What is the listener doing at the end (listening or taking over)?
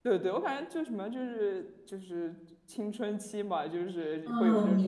taking over